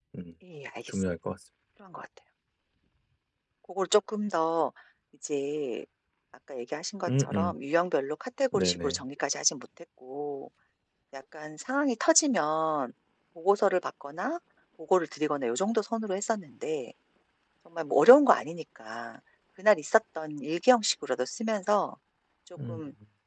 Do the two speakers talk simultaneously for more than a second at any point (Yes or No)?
No